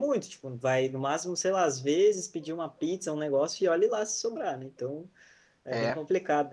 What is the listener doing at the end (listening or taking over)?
listening